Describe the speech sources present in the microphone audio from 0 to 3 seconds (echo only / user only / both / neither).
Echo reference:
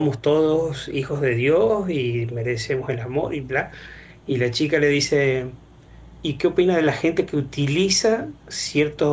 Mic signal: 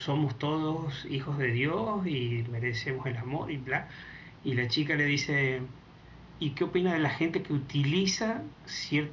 echo only